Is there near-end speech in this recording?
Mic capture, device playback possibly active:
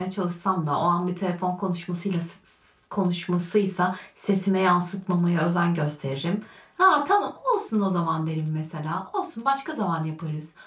Yes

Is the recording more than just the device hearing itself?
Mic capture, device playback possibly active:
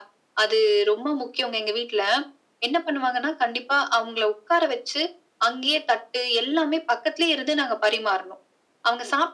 No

